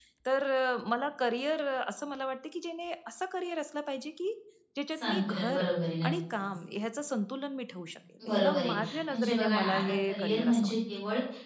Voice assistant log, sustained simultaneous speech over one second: present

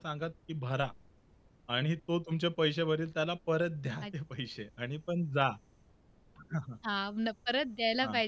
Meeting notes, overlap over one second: none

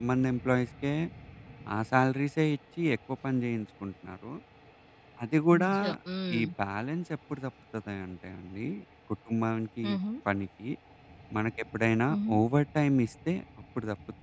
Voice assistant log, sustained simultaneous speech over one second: none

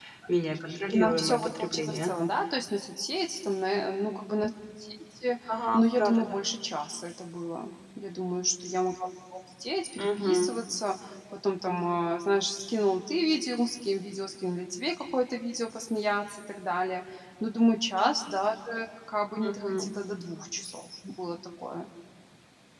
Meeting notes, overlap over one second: present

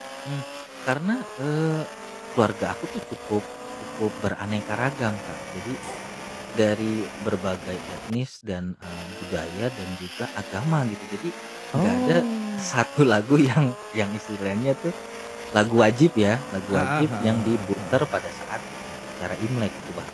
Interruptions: present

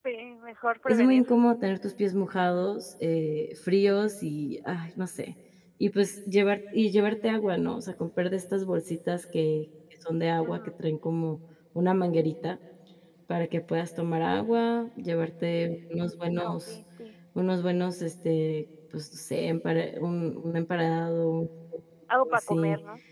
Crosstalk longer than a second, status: none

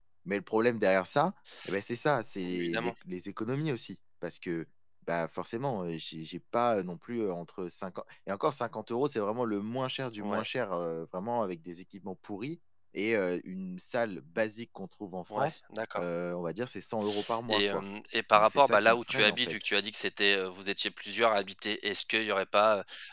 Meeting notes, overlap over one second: present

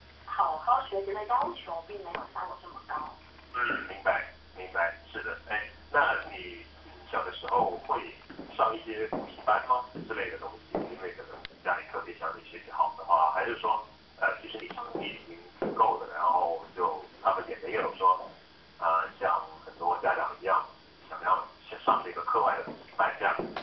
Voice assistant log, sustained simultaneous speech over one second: none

